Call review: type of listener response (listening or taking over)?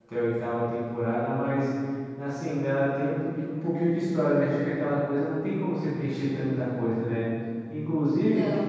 listening